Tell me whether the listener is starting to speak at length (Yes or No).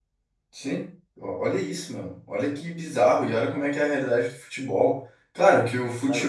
No